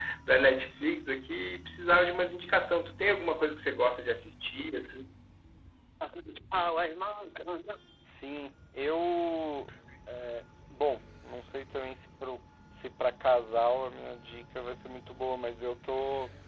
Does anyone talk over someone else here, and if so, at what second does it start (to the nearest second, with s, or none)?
none